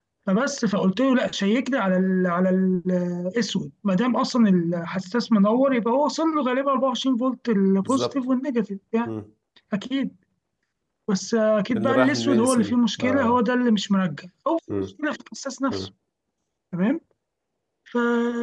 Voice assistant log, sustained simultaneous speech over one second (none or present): present